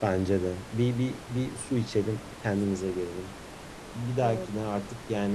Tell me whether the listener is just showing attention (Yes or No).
Yes